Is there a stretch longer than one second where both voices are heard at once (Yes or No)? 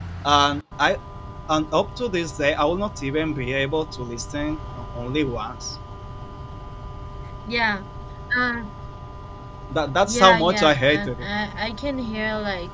Yes